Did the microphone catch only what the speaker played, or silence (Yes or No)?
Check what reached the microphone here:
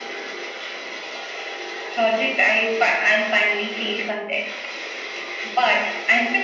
Yes